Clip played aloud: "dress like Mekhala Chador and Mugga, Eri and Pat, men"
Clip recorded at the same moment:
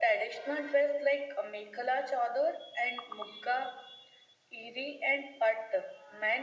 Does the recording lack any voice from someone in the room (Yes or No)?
Yes